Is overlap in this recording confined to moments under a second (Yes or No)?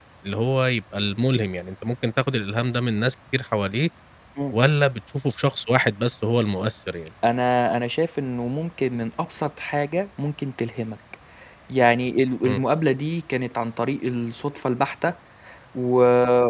Yes